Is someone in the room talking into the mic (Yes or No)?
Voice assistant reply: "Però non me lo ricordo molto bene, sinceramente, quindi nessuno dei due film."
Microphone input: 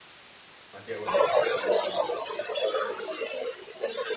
Yes